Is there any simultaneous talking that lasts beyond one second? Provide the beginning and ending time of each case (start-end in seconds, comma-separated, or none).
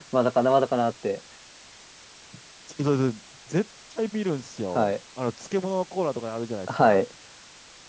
none